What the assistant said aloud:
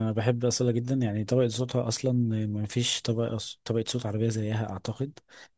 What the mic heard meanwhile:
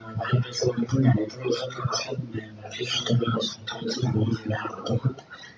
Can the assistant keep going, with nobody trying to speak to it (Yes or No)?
Yes